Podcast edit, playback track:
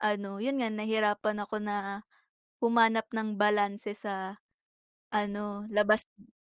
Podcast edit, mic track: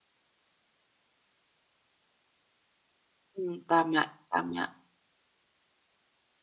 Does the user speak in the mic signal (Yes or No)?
Yes